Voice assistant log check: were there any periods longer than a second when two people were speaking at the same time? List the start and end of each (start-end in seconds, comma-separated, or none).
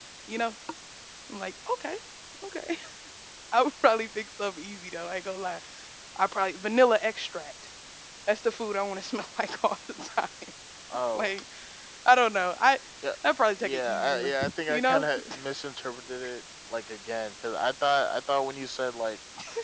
13.6-15.4